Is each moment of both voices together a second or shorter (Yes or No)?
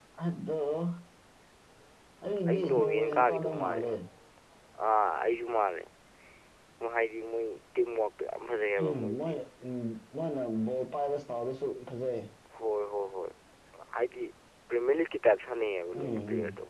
No